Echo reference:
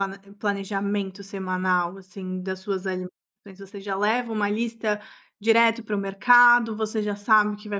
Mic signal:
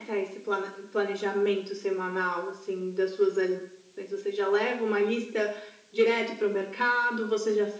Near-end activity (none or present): none